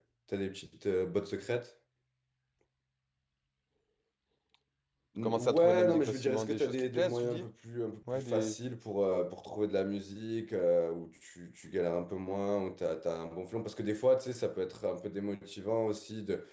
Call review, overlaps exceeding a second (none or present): present